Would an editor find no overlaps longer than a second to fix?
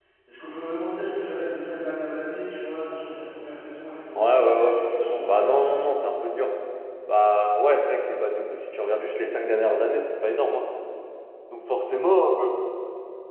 No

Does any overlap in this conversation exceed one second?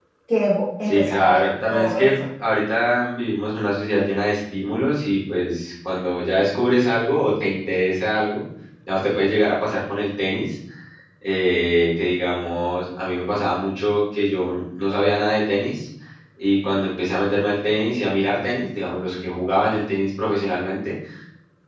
Yes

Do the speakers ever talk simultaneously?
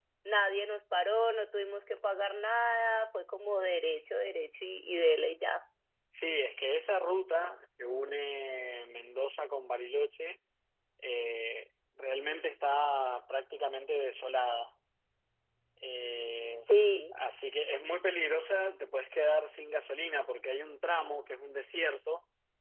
No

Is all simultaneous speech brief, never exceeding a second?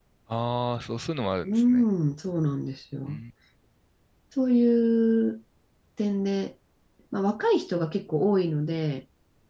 Yes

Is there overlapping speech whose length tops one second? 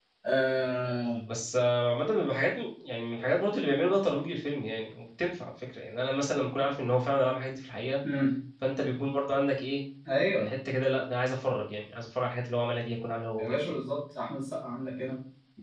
No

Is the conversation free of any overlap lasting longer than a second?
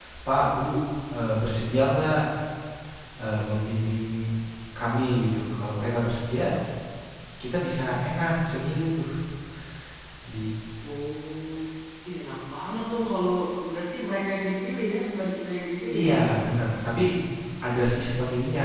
Yes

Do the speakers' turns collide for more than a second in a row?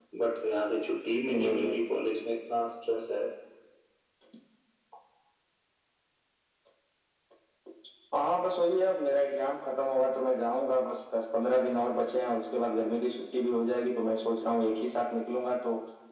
No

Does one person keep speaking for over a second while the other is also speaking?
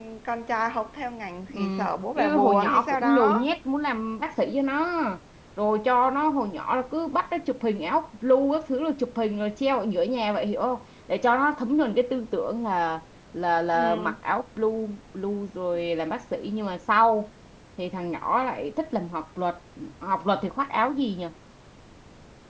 Yes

